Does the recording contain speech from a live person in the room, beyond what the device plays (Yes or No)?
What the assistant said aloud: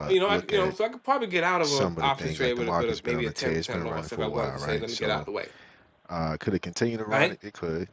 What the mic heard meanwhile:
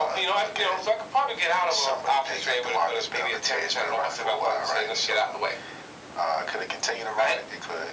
No